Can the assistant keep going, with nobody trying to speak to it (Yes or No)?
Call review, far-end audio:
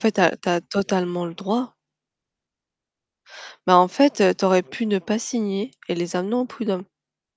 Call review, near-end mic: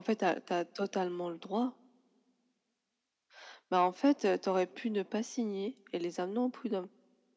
Yes